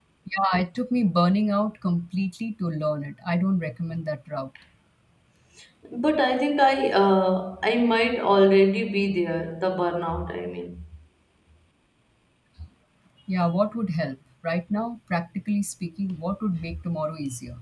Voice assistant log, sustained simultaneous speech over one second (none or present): none